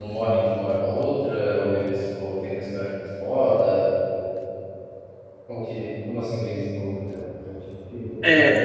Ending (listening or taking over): taking over